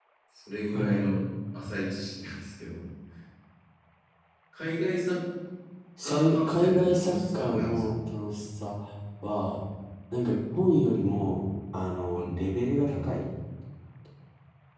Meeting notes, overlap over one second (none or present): present